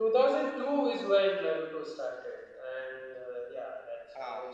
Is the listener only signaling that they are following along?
Yes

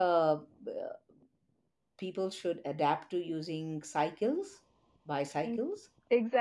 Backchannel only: No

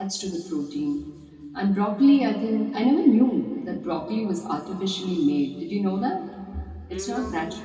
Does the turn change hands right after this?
No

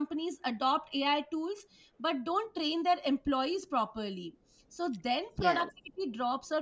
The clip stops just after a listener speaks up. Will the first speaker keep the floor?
Yes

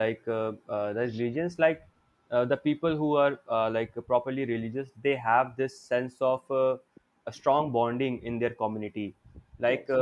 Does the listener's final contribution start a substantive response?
No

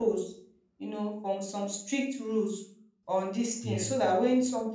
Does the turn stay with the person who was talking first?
Yes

